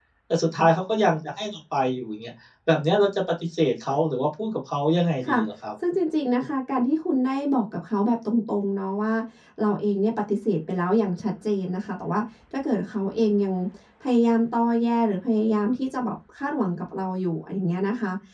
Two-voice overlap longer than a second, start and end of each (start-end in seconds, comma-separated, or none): none